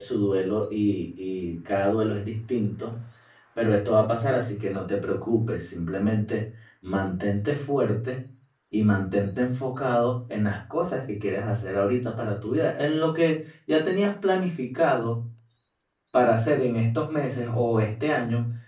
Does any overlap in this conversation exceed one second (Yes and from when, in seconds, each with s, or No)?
No